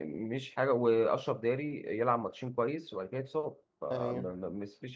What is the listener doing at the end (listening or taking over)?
listening